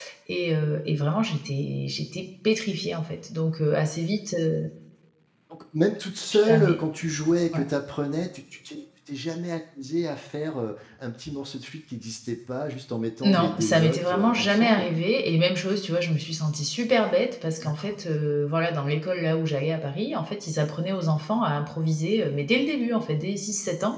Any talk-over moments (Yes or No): Yes